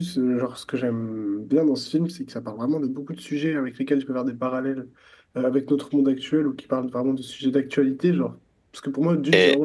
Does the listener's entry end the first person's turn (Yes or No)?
No